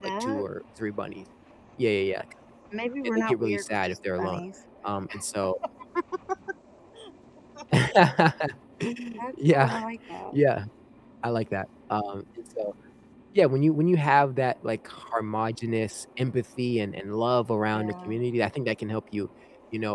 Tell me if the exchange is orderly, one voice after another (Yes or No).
No